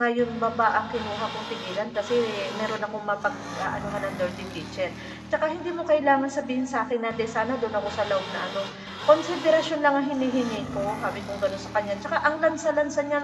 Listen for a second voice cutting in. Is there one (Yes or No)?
No